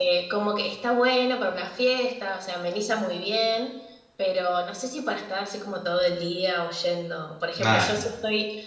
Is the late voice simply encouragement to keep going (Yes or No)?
Yes